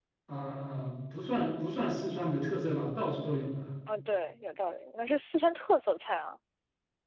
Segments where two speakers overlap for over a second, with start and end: none

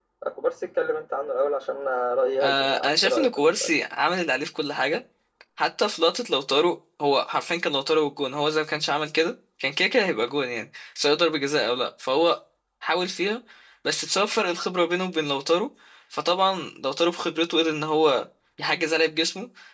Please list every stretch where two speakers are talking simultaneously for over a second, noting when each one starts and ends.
2.4-3.7

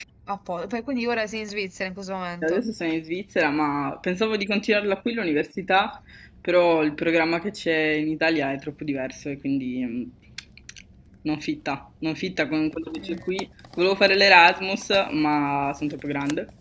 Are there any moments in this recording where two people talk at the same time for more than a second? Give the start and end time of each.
none

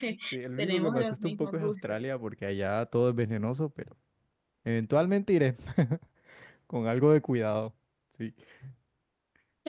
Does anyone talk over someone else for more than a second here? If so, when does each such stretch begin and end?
0.6-2.0

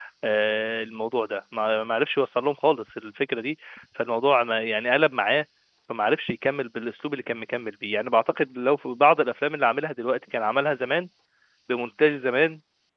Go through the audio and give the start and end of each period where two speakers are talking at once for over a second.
none

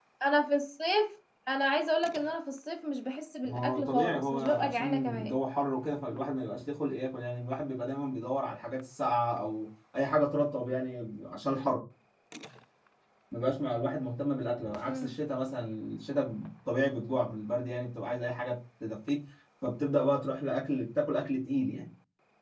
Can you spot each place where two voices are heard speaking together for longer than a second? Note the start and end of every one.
3.4-5.3

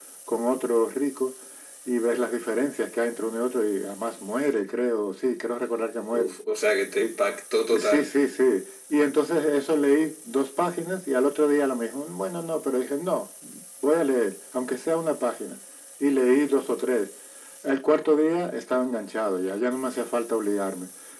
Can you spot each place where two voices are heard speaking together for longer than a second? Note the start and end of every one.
none

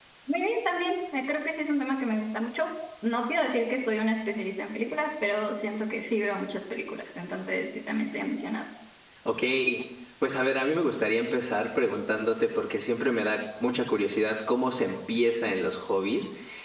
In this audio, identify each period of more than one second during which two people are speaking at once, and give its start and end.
none

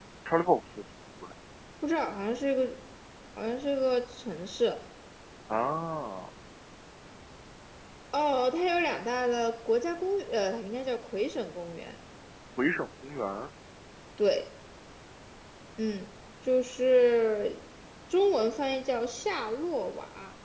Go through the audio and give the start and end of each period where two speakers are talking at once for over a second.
none

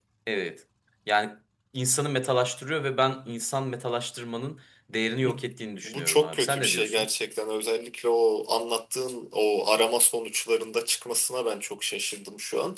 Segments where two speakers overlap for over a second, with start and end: 5.8-7.1

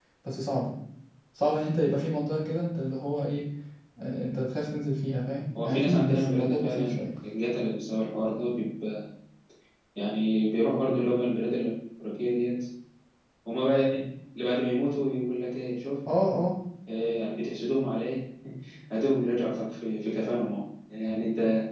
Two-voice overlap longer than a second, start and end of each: 5.6-7.0

